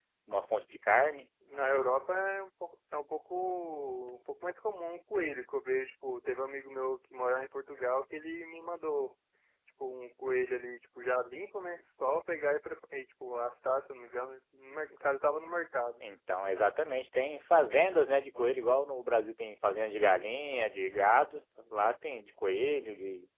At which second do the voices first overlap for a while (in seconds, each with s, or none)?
none